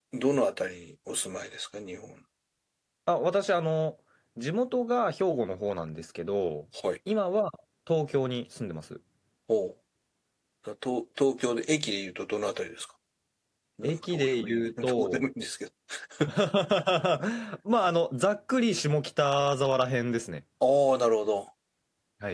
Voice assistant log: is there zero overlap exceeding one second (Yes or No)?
No